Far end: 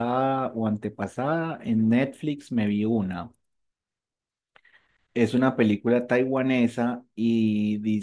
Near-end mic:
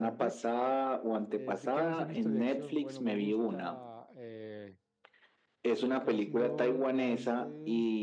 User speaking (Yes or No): Yes